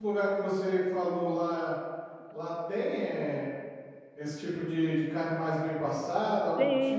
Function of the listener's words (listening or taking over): taking over